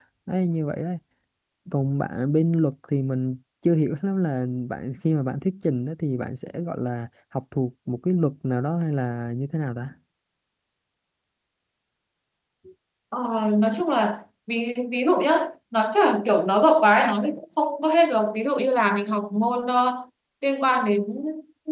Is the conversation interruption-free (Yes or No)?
Yes